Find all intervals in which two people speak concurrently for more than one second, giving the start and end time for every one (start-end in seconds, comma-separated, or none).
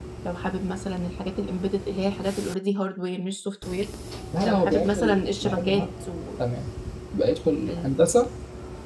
4.4-5.8